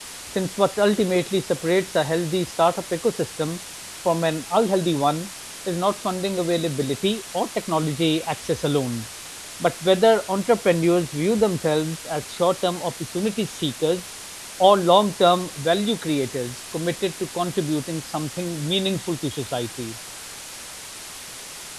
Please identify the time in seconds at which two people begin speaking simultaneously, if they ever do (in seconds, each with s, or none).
none